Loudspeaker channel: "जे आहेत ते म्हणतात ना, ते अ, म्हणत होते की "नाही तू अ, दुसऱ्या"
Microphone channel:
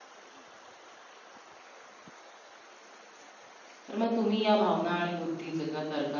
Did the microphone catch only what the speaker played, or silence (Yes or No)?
No